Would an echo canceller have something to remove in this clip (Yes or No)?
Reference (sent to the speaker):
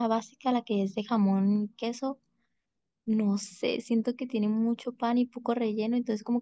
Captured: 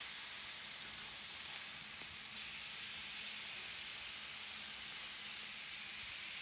No